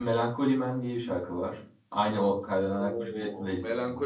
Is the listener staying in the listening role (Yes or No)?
No